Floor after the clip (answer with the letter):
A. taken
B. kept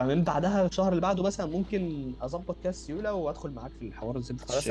A